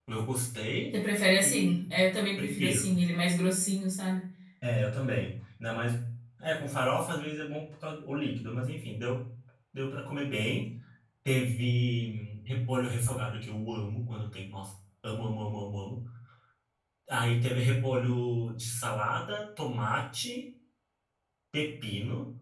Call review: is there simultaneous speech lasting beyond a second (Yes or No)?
No